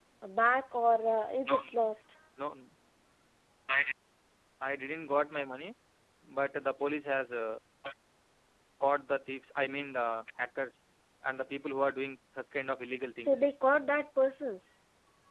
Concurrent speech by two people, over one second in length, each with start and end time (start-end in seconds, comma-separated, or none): none